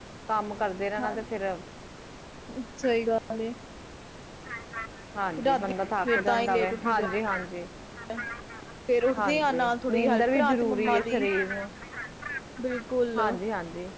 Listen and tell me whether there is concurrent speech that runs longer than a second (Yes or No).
Yes